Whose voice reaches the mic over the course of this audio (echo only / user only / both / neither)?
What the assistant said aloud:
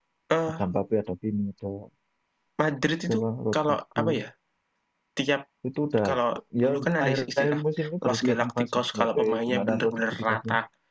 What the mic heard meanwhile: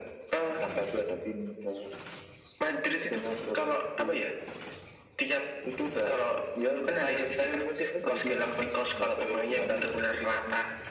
echo only